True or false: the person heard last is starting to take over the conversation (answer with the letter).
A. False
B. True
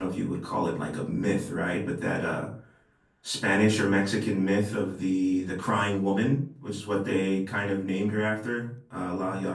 B